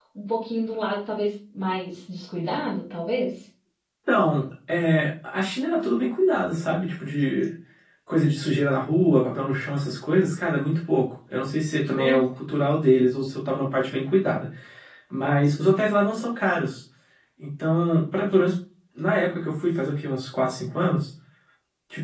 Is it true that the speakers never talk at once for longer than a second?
Yes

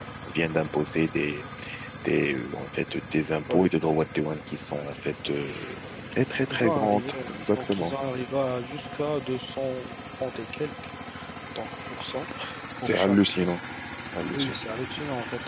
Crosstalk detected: Yes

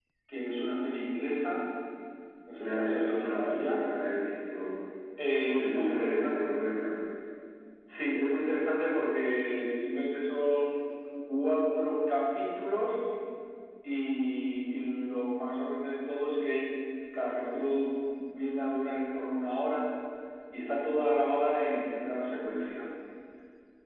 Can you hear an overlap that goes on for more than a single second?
Yes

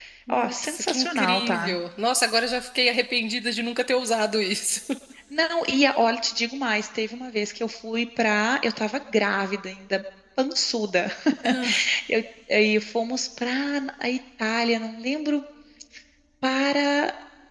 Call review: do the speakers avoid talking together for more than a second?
No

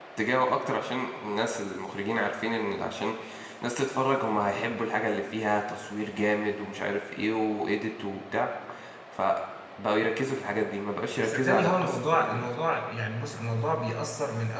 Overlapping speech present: Yes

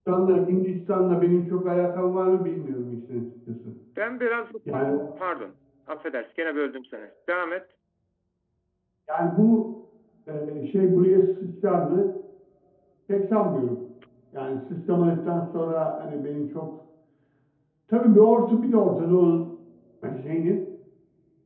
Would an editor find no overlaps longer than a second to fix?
Yes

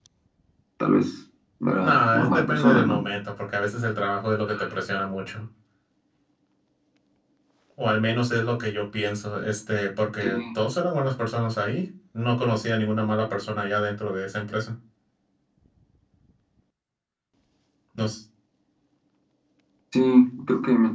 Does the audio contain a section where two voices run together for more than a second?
Yes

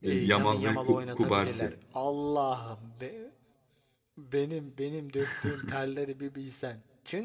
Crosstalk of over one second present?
Yes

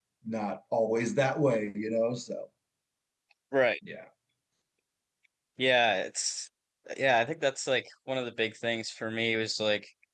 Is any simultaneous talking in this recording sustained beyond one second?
No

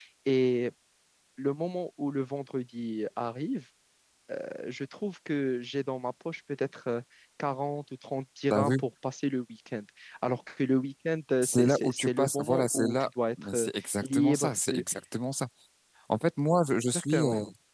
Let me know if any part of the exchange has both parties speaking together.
Yes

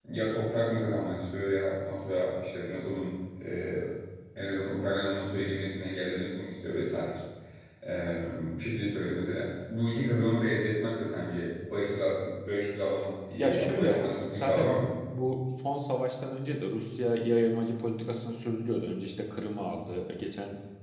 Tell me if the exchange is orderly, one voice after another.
No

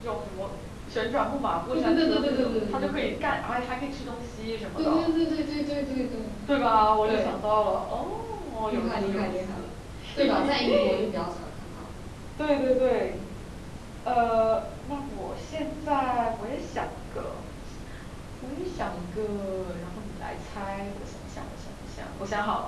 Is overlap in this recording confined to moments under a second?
No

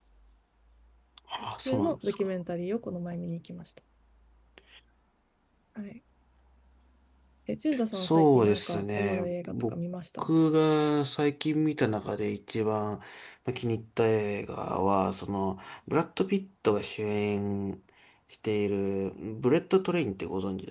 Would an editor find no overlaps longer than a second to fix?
No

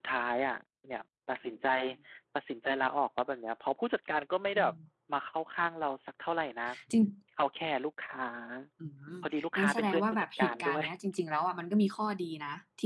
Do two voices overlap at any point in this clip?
Yes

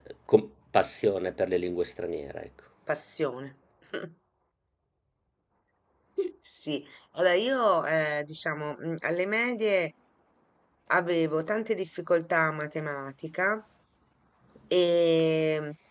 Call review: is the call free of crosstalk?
Yes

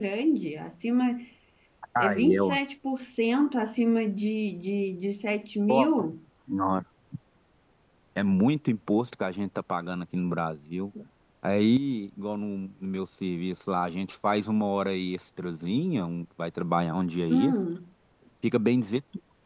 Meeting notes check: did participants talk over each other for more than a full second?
No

